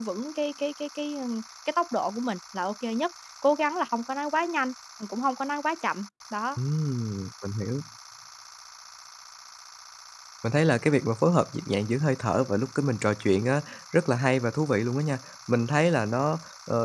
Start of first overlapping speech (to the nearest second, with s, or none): none